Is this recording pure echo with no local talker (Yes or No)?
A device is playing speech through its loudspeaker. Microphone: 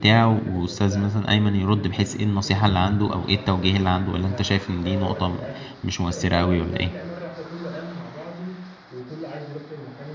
No